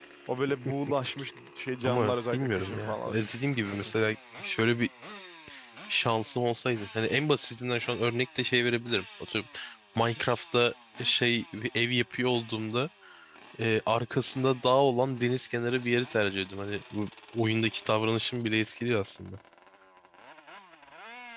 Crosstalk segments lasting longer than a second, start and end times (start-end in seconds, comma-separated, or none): 1.8-3.9